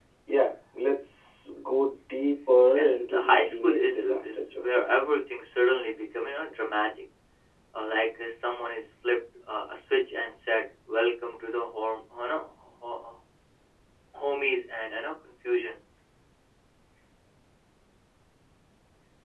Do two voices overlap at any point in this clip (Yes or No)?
Yes